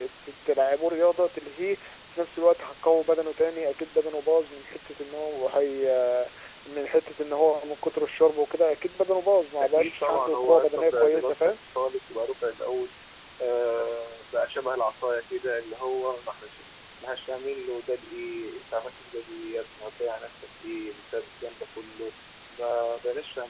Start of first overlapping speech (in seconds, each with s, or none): 9.6 s